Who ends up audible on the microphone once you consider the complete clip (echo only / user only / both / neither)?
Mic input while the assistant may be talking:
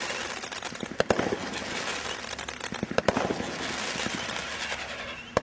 neither